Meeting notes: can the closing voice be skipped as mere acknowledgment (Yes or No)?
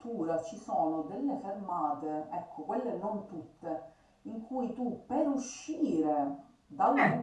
Yes